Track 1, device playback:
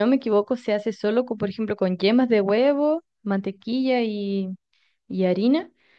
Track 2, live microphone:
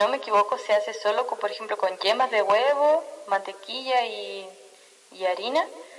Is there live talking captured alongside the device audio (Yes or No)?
No